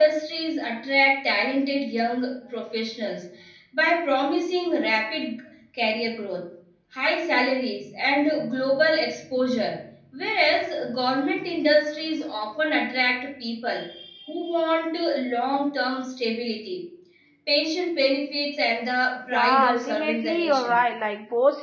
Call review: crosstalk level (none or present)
present